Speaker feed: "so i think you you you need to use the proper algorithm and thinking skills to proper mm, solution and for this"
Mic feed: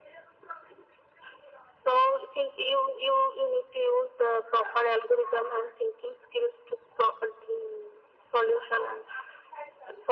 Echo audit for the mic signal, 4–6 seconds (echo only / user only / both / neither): echo only